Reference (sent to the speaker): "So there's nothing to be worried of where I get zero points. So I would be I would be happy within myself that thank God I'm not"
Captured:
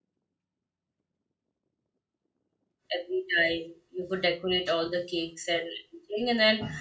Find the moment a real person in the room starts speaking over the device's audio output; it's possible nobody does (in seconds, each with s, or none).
2.9 s